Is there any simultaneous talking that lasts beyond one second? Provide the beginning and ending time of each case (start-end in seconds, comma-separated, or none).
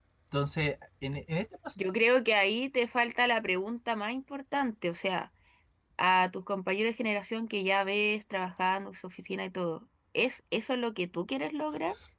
none